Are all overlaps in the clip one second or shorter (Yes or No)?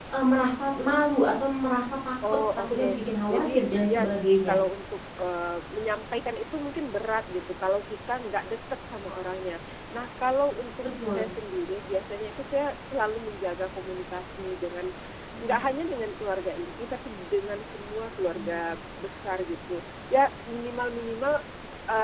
No